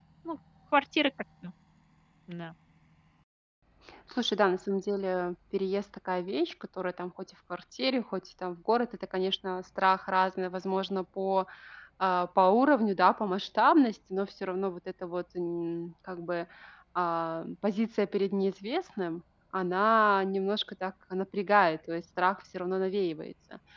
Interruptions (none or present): none